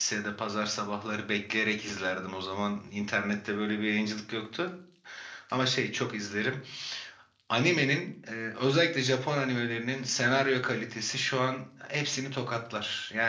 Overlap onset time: none

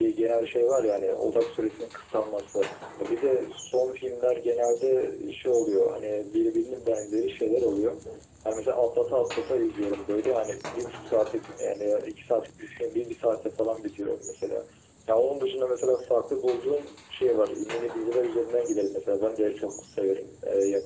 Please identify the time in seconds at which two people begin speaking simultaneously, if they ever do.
none

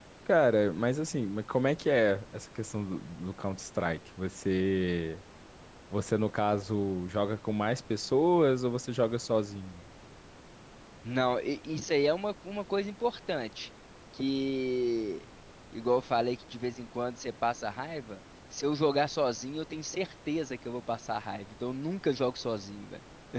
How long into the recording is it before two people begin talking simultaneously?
none

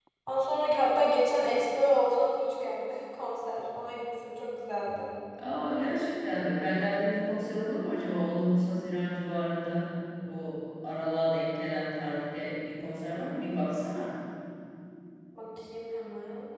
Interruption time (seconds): none

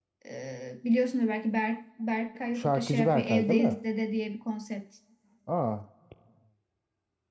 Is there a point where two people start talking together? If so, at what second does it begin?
2.5 s

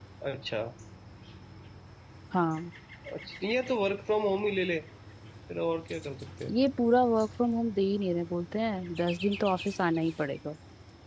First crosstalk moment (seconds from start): none

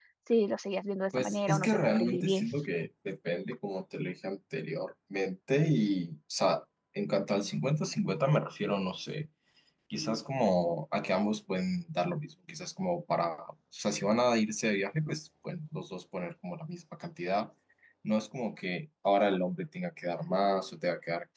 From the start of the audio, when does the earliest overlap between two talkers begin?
1.1 s

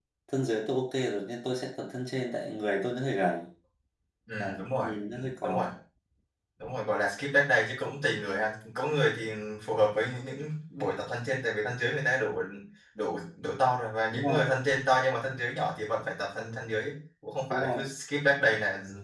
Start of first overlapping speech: 4.4 s

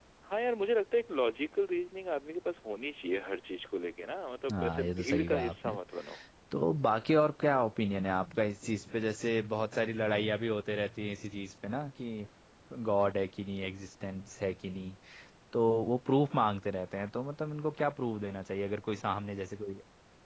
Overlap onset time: 4.5 s

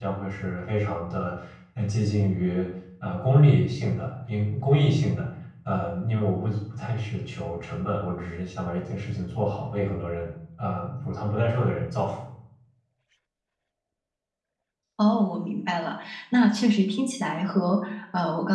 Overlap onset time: none

